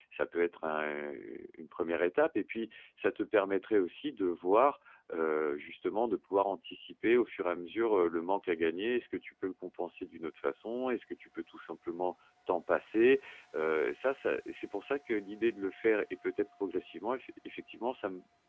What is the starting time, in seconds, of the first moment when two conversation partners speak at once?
none

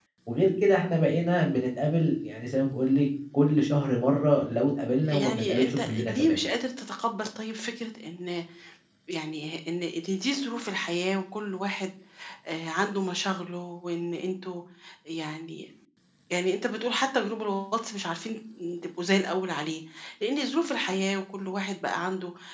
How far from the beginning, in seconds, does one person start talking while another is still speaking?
5 s

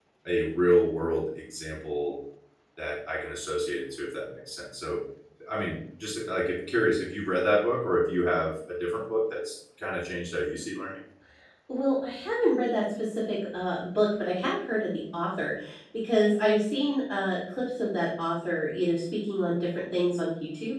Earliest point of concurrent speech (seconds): none

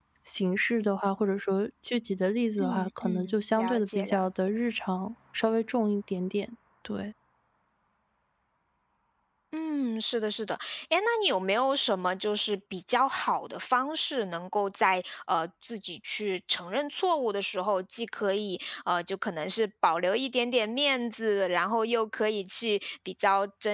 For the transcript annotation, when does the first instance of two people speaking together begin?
3 s

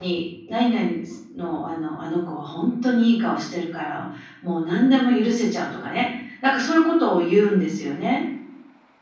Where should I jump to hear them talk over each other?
none

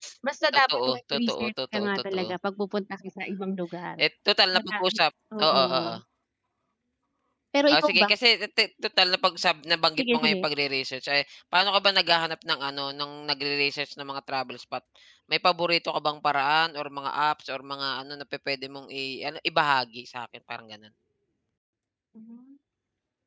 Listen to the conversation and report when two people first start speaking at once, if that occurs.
1 s

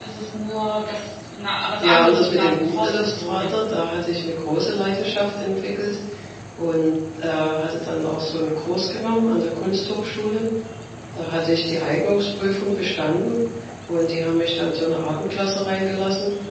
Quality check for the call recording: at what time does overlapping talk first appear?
2 s

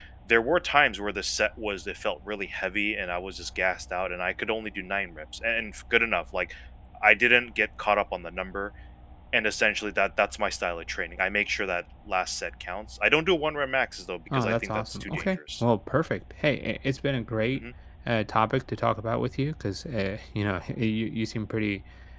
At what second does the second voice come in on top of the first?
14 s

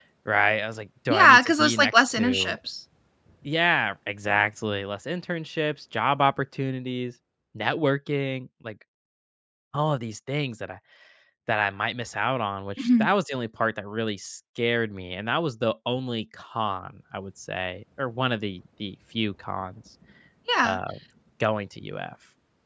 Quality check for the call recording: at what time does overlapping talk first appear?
1 s

